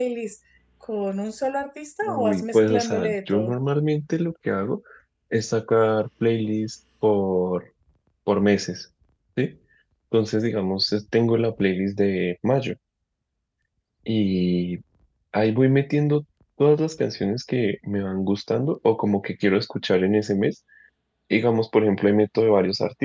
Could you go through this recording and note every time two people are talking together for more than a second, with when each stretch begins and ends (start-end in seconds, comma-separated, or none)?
2.0-3.6